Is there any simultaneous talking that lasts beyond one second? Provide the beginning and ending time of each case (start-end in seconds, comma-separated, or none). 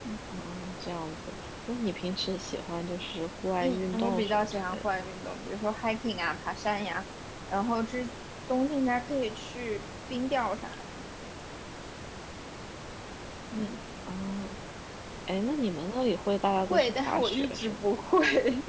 3.6-5.1, 16.7-17.9